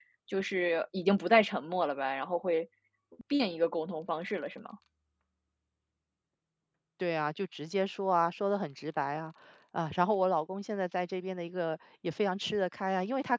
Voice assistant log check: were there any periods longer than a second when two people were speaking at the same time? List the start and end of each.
none

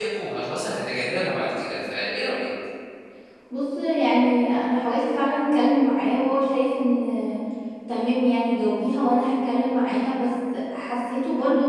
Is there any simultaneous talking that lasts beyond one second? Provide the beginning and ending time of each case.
none

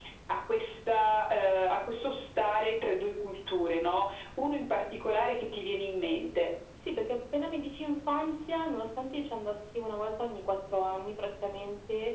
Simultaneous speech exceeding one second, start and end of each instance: none

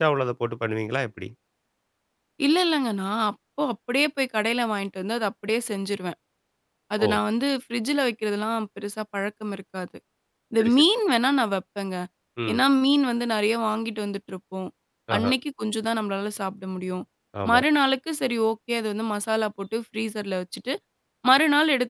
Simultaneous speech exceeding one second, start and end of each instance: none

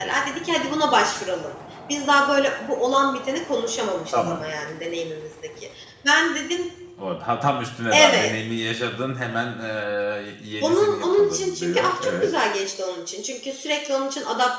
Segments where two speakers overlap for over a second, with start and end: 10.6-12.3

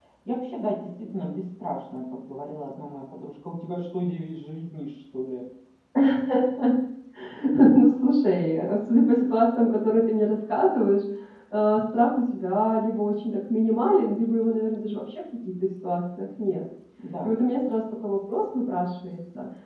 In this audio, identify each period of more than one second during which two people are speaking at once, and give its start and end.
none

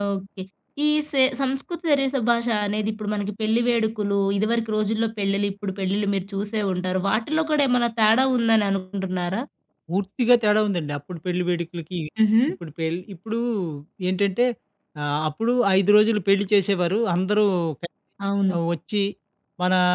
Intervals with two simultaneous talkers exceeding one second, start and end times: none

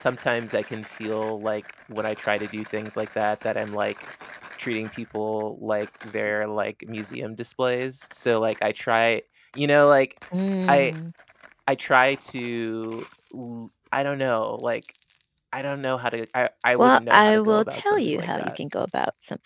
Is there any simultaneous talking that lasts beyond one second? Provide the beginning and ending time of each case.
16.8-18.6

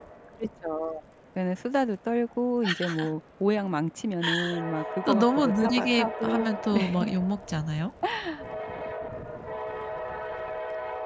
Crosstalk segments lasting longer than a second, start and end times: 5.1-6.5

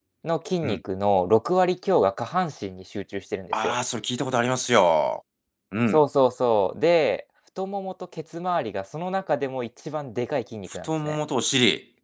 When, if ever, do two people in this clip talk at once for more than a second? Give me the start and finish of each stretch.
none

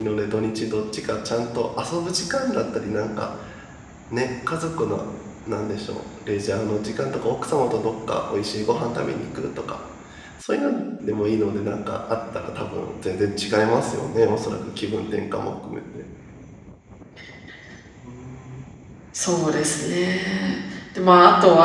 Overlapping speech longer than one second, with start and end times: none

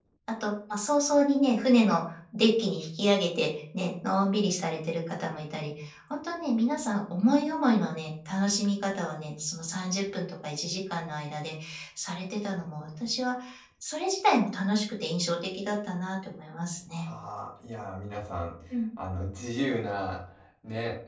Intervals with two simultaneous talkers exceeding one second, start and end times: none

